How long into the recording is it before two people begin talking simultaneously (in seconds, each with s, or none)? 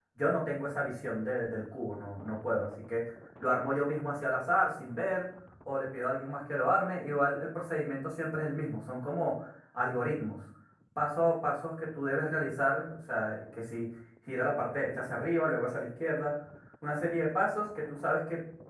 none